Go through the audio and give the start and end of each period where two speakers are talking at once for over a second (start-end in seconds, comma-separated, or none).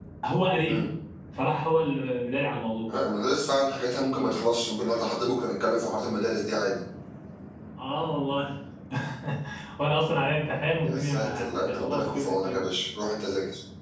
10.8-12.7